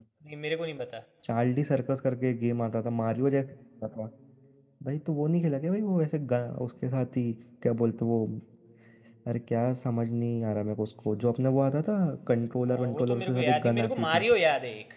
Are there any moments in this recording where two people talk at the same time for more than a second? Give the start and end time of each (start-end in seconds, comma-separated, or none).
12.7-14.2